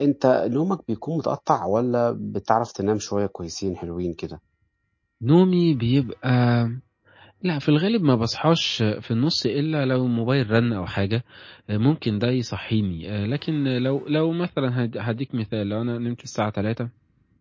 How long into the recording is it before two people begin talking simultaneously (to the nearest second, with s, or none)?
none